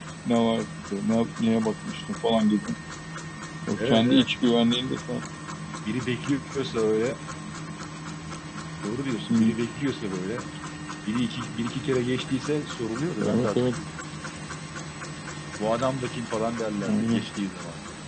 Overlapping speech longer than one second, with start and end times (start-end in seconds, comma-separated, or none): none